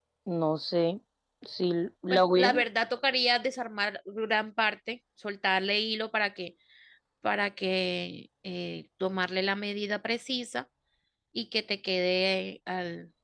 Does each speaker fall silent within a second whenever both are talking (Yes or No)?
Yes